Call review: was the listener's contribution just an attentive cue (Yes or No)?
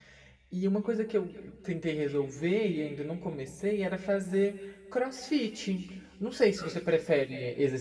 Yes